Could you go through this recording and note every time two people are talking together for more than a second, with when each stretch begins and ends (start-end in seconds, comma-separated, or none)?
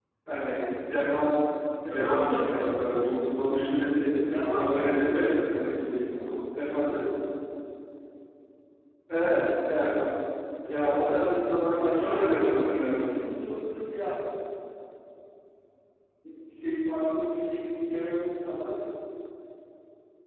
1.9-3.3, 4.5-5.8, 11.8-13.1